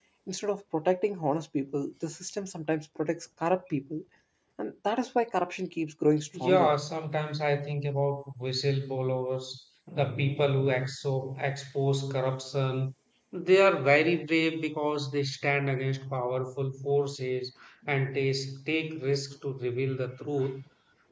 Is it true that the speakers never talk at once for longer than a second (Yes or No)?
Yes